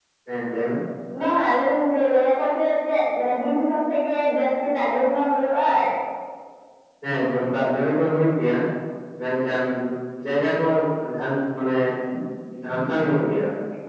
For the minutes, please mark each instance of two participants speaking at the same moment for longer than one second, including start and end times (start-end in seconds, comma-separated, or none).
none